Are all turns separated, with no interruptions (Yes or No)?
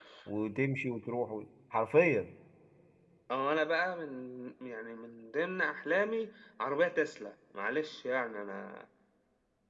Yes